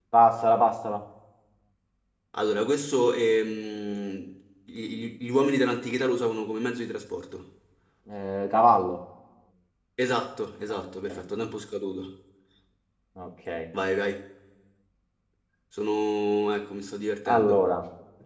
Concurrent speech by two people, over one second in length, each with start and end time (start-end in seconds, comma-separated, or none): none